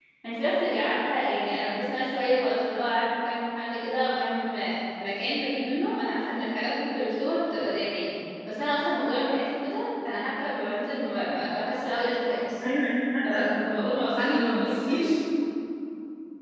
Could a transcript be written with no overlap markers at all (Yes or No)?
No